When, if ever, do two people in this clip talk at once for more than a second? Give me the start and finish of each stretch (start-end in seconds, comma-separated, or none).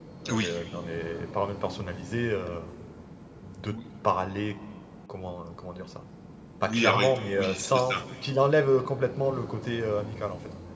6.6-8.0